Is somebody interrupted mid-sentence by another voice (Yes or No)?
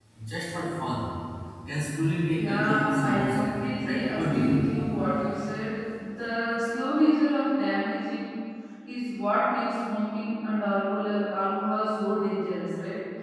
Yes